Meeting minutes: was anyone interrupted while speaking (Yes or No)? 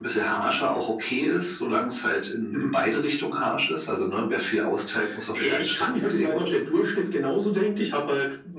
Yes